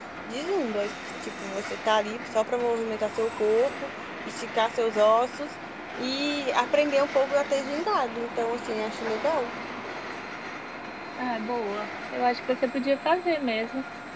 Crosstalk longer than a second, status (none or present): none